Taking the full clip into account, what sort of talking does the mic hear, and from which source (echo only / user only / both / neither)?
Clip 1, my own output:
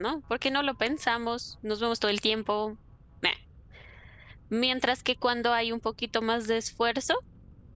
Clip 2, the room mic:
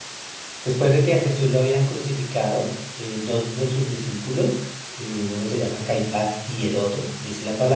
user only